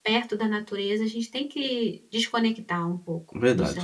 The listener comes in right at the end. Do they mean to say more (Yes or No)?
Yes